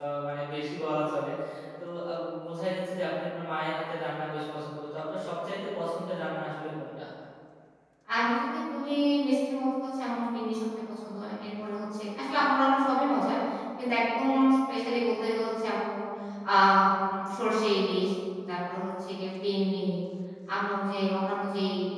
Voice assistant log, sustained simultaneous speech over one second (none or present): none